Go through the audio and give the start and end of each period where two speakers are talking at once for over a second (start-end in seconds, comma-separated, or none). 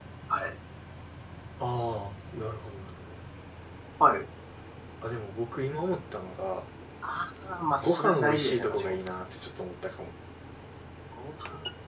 7.8-9.0